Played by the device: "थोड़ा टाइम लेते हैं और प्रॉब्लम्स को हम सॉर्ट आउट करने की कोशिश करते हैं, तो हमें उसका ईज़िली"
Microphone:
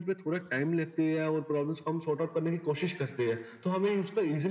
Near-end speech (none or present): none